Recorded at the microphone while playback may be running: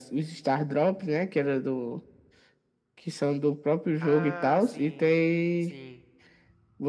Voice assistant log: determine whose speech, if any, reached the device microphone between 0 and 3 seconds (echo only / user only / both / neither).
echo only